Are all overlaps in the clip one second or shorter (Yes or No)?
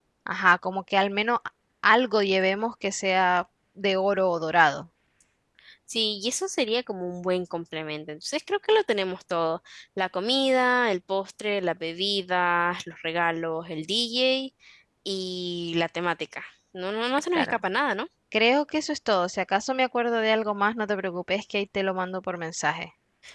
Yes